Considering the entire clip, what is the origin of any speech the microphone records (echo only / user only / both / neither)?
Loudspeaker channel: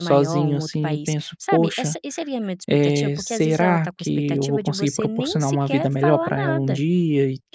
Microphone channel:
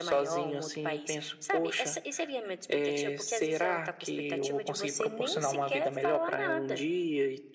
echo only